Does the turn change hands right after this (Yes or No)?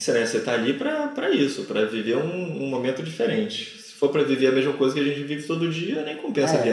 Yes